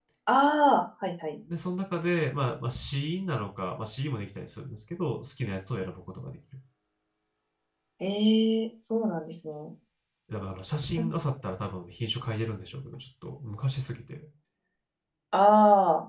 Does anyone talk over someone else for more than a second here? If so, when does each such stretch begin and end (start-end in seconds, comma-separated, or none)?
none